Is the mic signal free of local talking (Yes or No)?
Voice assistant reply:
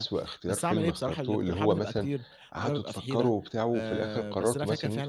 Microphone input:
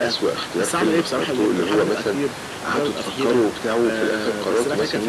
Yes